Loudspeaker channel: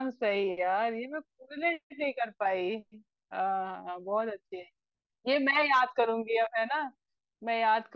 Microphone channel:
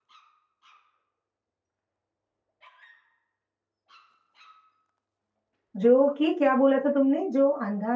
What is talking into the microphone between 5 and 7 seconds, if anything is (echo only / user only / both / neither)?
user only